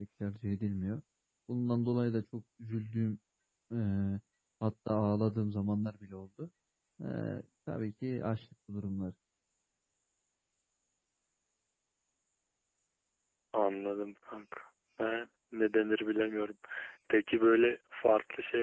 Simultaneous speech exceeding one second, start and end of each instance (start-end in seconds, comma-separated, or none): none